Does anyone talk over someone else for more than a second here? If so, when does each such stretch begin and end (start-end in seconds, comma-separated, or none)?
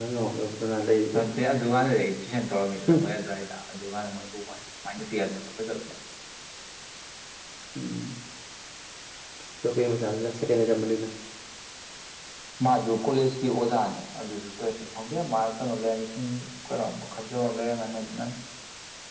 none